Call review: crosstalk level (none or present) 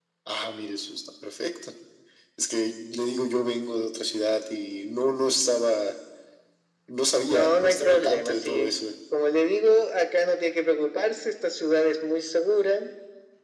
present